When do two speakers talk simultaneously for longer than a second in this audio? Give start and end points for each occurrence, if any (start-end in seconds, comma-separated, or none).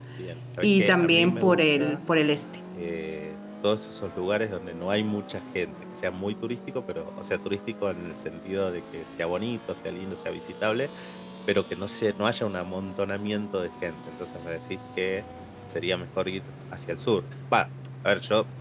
0.6-2.0